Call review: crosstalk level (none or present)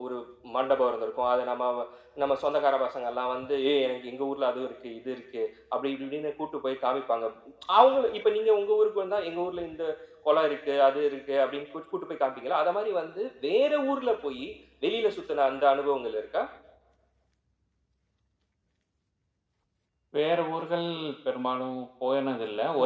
none